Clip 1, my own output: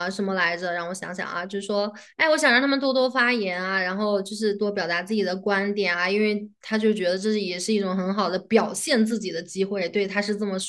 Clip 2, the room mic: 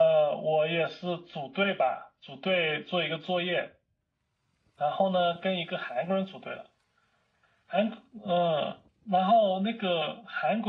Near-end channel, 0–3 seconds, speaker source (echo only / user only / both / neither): user only